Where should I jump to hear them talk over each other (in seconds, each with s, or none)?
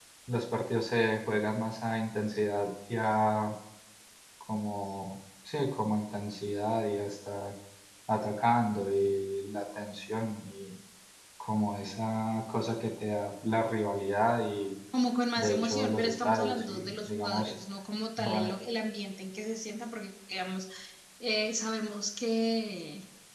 15.4 s